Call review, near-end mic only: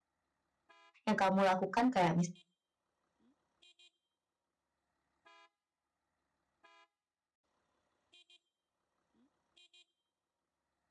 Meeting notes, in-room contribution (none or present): present